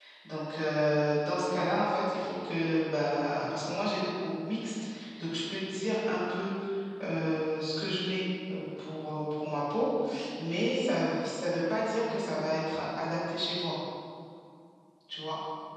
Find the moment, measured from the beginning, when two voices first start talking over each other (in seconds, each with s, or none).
none